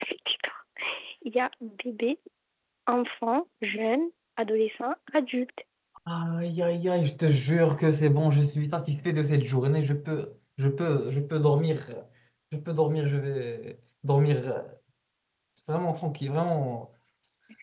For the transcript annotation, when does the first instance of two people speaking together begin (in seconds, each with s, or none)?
none